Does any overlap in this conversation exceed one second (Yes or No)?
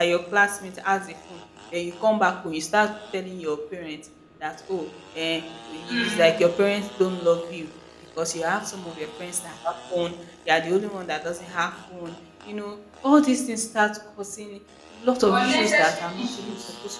Yes